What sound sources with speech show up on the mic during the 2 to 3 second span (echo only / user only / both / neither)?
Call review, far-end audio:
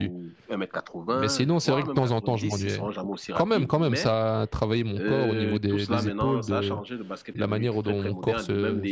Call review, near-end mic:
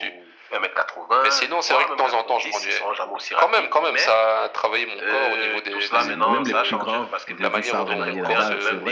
echo only